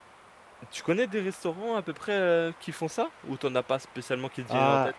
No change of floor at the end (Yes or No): No